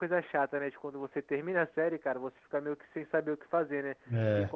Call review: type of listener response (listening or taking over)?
listening